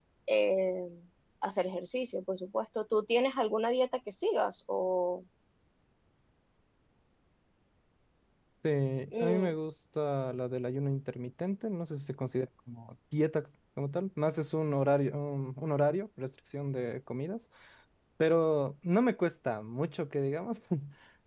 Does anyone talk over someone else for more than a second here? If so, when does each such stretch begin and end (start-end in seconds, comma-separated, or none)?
none